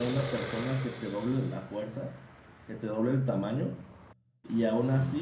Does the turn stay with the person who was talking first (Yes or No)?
Yes